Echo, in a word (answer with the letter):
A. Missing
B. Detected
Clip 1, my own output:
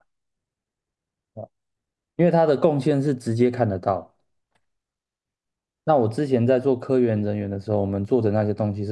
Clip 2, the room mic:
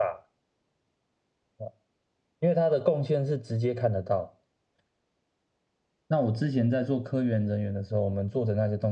B